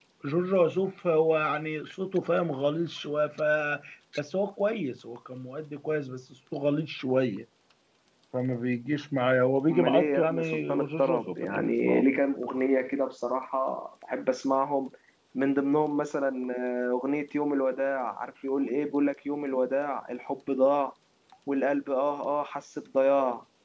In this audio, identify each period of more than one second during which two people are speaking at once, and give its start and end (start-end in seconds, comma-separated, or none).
9.7-12.0